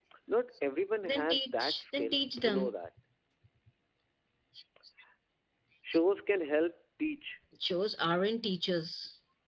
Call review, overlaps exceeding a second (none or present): present